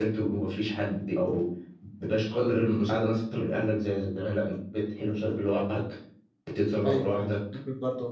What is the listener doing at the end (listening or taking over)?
taking over